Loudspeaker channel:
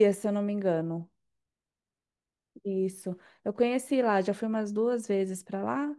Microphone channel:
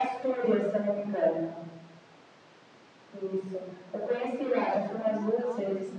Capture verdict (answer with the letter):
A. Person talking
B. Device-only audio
A